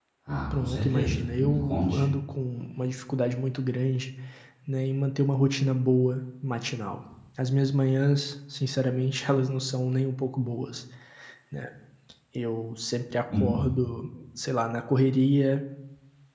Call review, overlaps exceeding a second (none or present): present